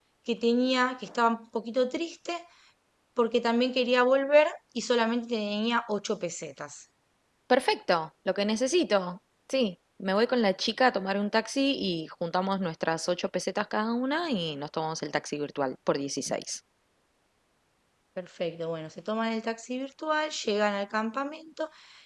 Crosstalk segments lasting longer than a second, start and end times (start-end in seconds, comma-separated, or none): none